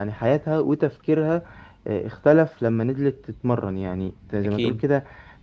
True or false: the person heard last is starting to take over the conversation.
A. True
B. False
B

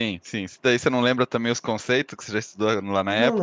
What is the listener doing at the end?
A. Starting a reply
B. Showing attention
A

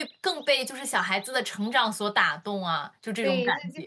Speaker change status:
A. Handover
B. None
A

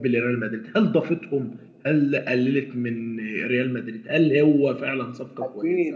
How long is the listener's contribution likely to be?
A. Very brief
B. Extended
B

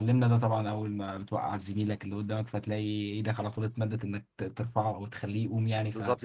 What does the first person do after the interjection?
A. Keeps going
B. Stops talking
B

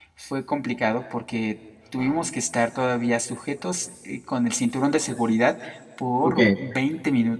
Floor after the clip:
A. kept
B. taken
A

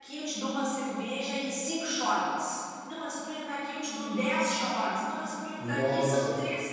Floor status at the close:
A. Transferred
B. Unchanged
B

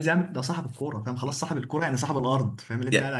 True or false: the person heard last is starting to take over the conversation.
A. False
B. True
B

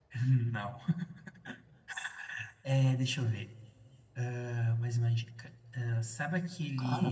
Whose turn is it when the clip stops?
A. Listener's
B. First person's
B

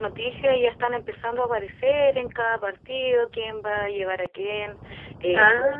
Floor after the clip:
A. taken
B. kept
B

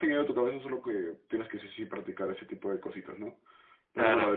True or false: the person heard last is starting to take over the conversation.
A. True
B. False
B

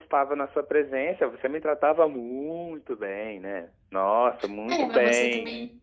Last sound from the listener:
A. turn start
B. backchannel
A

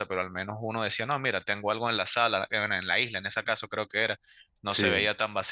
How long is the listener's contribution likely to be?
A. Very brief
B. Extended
A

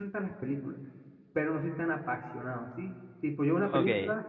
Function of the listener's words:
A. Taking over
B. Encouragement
B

